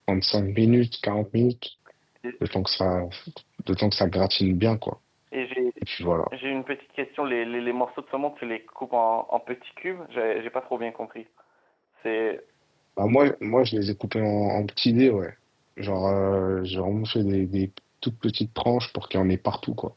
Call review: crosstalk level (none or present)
none